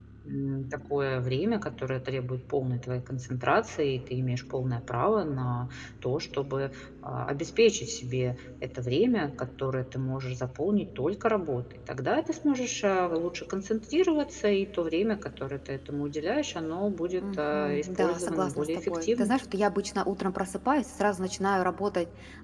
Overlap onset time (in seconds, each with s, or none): 17.2 s